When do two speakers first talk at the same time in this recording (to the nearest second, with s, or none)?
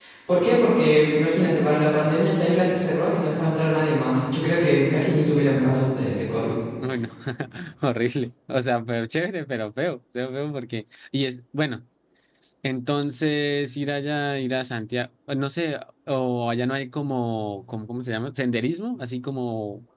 none